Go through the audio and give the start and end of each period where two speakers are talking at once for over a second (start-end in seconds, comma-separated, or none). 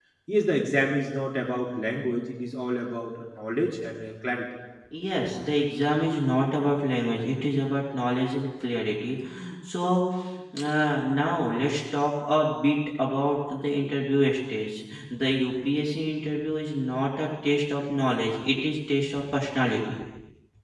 none